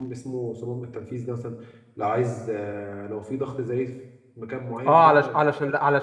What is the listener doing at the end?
taking over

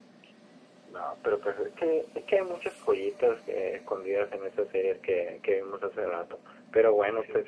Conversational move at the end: listening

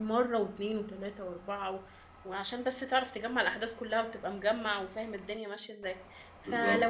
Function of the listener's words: listening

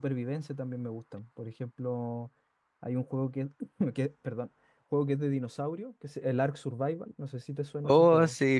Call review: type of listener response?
taking over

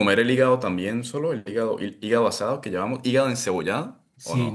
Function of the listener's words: taking over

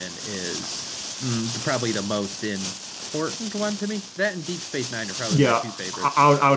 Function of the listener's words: taking over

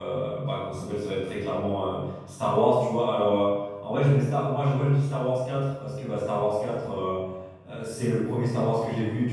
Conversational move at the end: listening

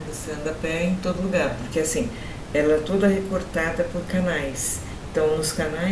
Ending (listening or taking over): listening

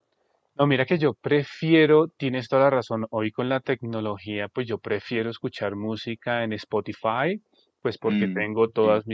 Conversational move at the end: listening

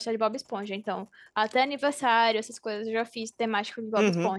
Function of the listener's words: listening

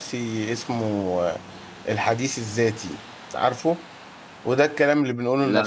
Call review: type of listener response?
listening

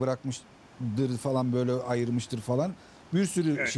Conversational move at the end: listening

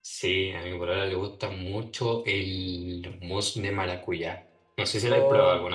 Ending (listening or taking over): taking over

